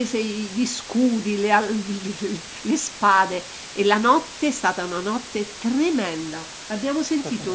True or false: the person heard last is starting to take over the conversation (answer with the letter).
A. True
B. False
B